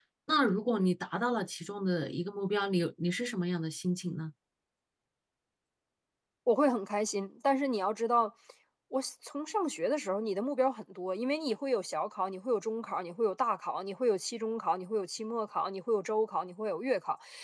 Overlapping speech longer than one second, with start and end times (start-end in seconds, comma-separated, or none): none